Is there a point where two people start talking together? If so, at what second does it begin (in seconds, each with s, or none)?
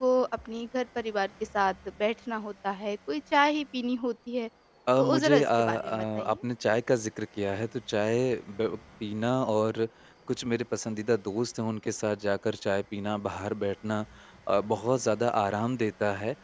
5.0 s